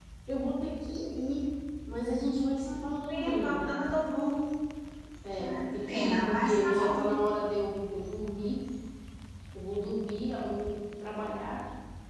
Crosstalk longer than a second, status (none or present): present